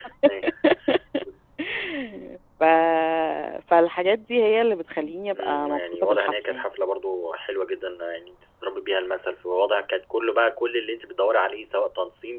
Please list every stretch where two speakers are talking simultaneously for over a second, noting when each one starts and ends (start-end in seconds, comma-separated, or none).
5.3-6.6